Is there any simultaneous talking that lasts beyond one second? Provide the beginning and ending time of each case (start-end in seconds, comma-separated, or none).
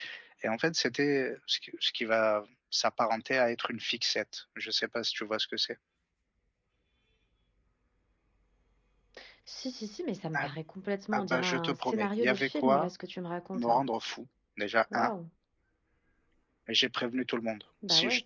11.1-12.9